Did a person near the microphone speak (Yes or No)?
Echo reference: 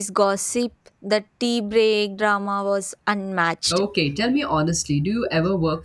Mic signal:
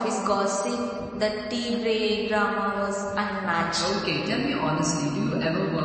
No